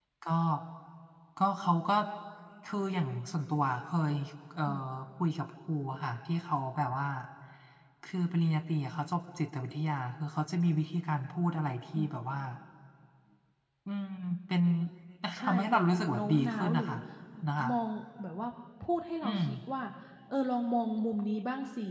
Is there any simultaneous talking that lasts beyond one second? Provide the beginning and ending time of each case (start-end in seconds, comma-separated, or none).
15.4-16.9